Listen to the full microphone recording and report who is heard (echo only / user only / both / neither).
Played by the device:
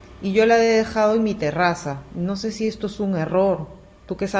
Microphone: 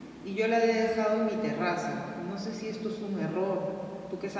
echo only